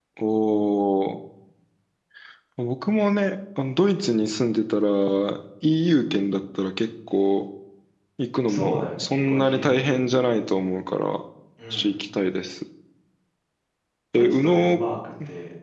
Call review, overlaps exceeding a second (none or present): present